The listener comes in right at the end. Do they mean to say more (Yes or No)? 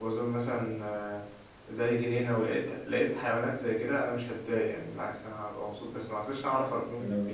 Yes